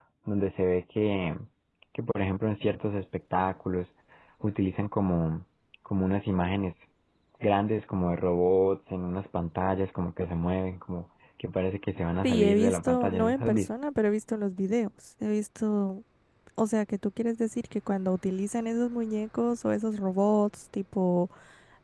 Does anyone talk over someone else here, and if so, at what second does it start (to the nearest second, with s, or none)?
12 s